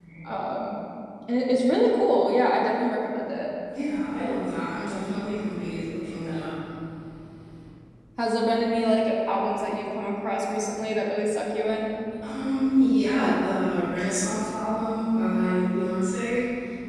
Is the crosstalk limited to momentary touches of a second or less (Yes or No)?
Yes